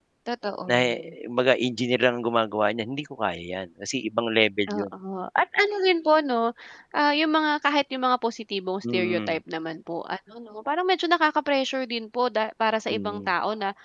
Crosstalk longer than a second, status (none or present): none